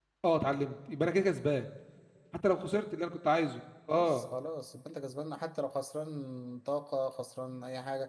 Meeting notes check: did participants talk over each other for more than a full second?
No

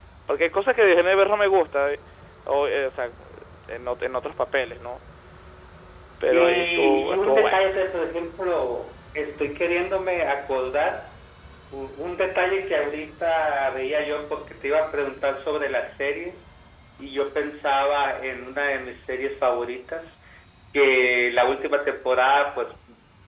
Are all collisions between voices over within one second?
No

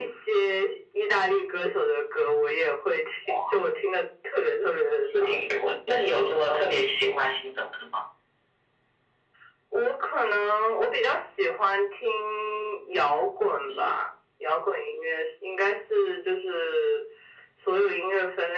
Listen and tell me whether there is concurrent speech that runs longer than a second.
No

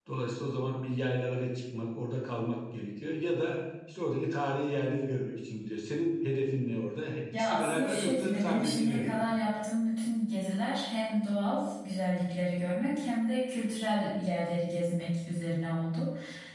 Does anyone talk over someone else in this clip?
Yes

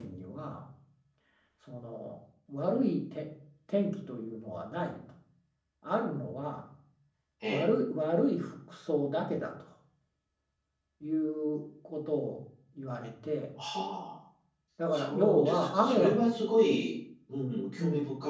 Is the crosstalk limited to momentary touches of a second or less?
No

